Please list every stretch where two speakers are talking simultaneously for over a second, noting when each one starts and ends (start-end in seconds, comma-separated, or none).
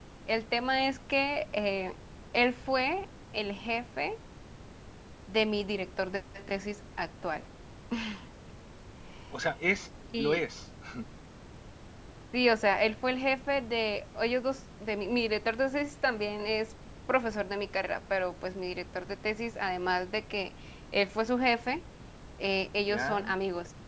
none